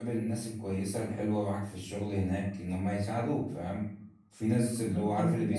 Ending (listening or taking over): listening